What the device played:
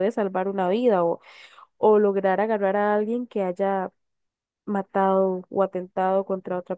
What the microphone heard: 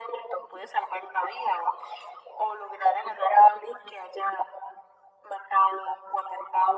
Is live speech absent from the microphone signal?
Yes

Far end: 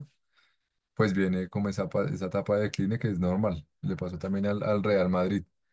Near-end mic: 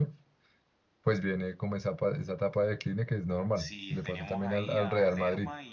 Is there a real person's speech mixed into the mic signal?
Yes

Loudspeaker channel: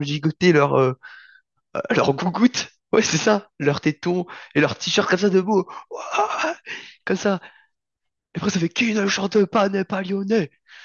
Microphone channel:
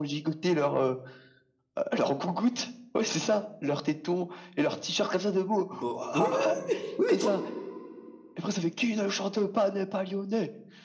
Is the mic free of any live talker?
No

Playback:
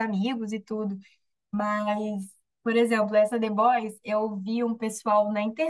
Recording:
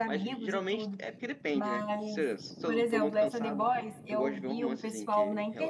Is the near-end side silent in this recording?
No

